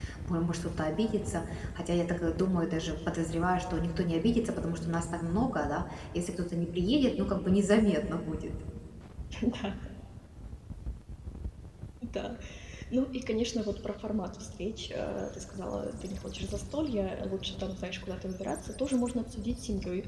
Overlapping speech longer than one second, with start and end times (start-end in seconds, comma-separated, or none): none